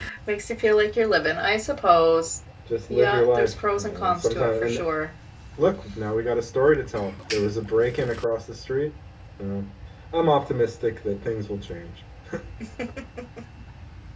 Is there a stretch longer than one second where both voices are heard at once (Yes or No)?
Yes